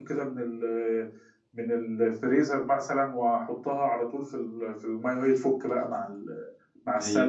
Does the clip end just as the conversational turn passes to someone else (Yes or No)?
Yes